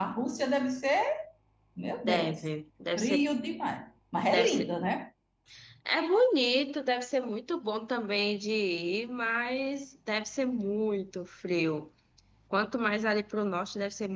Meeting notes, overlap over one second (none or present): none